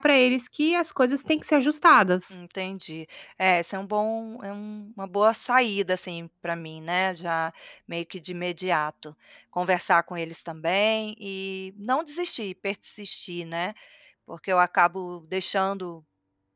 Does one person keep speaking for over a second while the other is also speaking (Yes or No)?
No